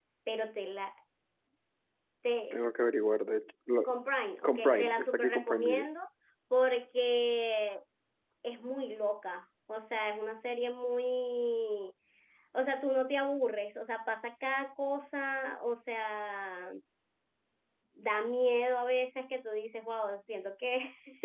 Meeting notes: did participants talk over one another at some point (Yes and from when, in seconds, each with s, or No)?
Yes, from 4.4 s